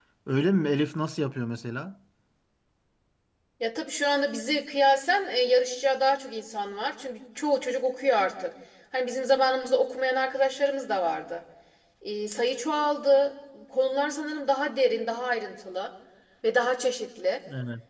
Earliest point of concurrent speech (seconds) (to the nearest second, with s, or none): none